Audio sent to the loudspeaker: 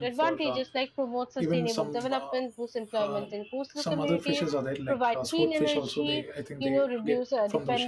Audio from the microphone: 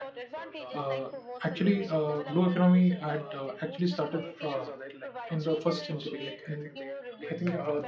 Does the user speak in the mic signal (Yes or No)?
Yes